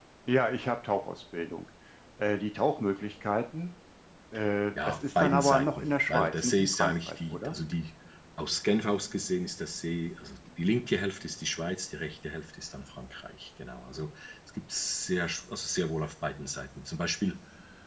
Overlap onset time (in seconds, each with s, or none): 4.9 s